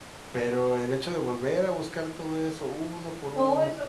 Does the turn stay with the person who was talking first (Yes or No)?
No